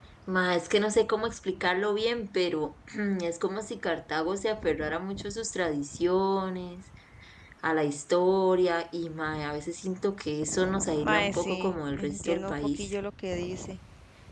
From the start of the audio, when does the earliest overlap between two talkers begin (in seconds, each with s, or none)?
11.0 s